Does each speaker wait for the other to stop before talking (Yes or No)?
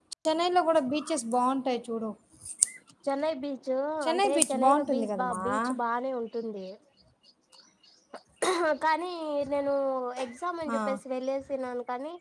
No